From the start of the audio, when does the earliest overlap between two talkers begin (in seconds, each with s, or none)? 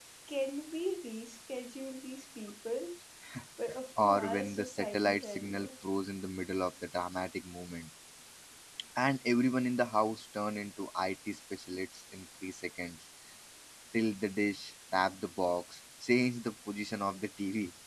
4.0 s